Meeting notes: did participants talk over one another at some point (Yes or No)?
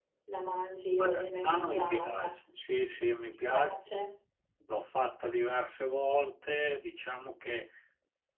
Yes